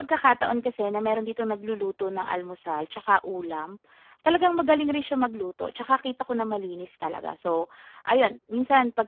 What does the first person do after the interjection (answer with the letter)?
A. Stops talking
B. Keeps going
B